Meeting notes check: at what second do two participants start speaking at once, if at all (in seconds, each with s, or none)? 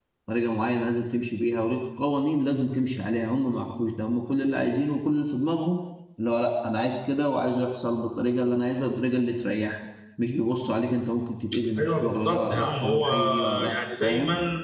11.8 s